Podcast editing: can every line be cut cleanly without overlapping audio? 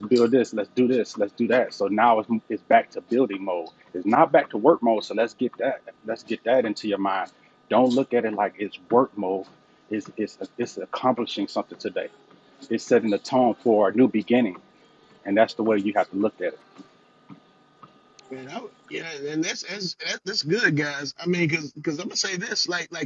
Yes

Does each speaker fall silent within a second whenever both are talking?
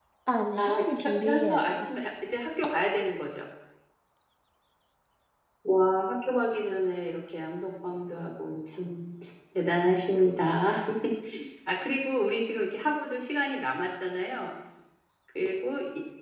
No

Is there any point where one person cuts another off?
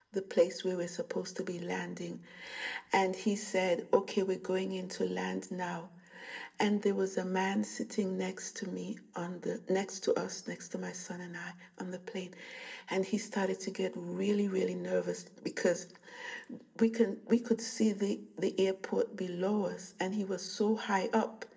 No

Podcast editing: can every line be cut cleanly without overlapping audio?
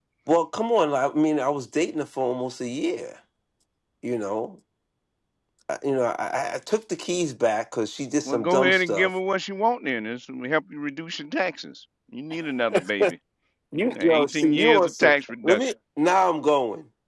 No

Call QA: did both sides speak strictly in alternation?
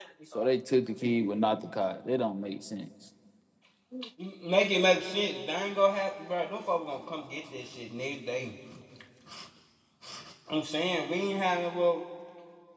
Yes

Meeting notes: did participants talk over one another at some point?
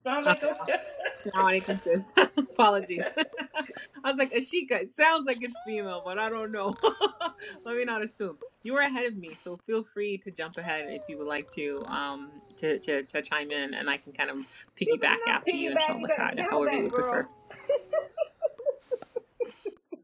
Yes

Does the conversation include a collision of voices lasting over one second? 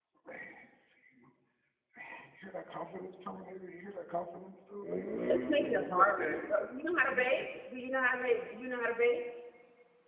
Yes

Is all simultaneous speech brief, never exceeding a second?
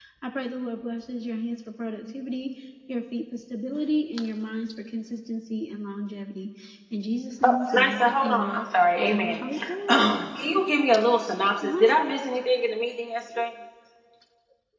No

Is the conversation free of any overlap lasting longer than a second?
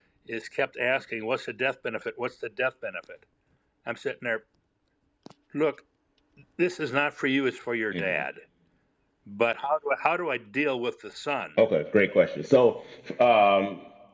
Yes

